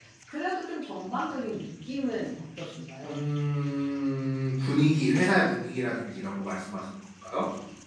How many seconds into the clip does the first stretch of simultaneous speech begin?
none

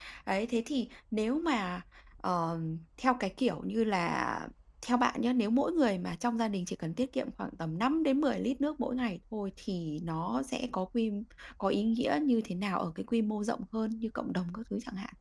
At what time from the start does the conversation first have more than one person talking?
none

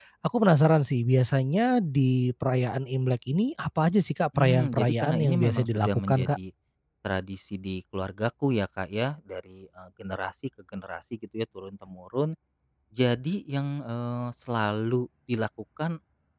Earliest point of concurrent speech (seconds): 4 s

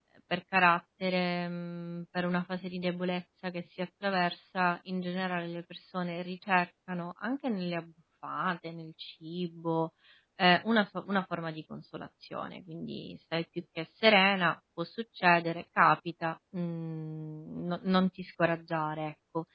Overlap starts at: none

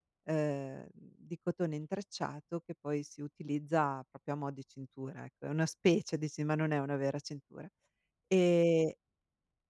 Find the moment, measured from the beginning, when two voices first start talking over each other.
none

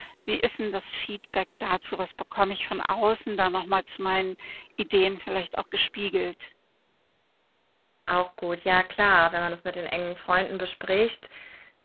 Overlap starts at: none

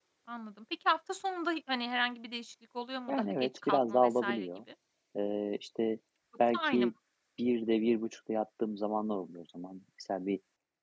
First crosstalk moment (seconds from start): 3 s

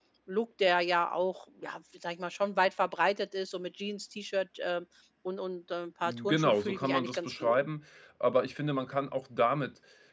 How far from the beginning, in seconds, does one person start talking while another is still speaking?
6 s

